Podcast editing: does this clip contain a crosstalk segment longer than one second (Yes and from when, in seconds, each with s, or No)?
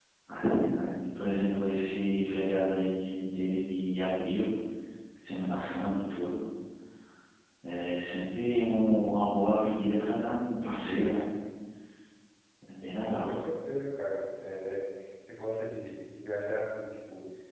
No